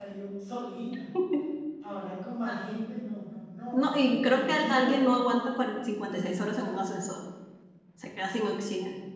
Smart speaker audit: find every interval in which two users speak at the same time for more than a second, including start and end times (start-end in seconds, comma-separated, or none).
3.7-5.1